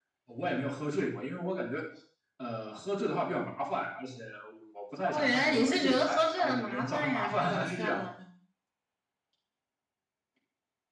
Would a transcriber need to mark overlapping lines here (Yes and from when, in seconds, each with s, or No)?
Yes, from 5.0 s